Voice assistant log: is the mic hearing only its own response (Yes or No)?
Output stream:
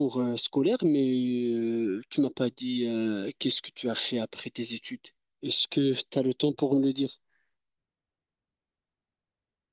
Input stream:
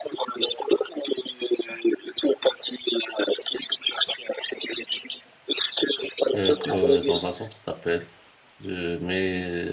No